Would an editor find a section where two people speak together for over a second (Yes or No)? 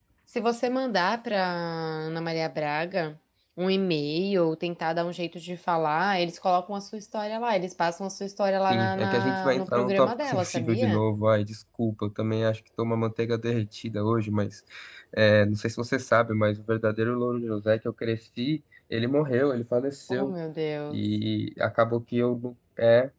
Yes